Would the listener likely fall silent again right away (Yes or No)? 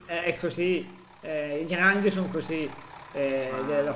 Yes